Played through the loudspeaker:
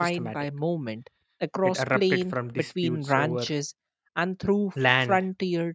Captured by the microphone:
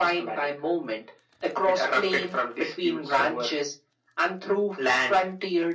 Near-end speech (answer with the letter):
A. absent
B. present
A